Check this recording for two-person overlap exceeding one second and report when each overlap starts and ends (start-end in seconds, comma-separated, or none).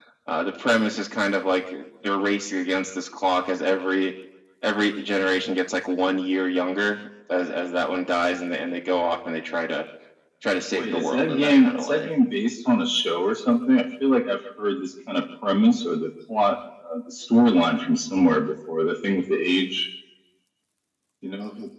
10.7-12.1